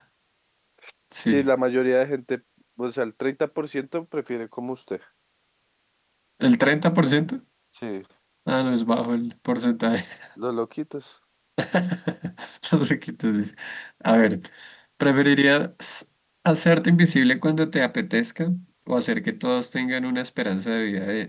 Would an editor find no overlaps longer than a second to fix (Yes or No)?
Yes